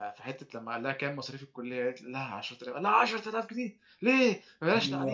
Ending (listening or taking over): taking over